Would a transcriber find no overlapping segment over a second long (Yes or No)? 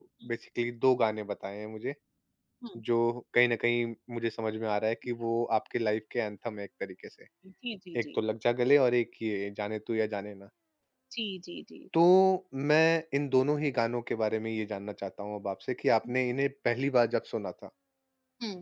Yes